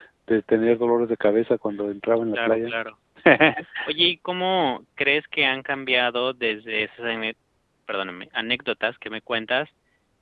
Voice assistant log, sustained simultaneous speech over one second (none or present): none